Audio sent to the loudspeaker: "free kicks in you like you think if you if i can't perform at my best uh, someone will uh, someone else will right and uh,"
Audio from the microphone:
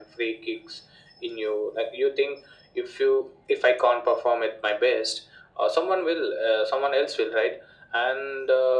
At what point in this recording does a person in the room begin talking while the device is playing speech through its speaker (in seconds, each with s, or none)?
none